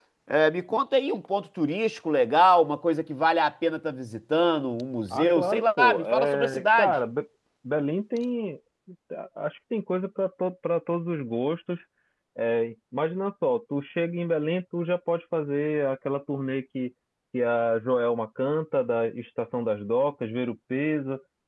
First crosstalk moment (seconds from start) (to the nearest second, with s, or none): 5 s